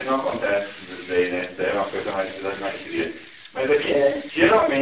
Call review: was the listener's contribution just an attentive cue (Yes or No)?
Yes